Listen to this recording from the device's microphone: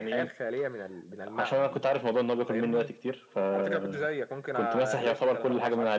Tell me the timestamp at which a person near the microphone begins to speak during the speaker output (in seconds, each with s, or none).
none